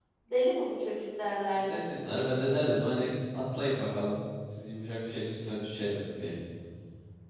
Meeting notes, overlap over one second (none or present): none